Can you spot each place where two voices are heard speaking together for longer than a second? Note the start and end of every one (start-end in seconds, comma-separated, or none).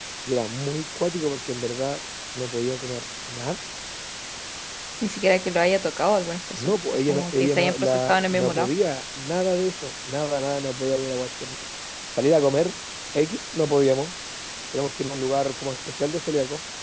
6.6-8.7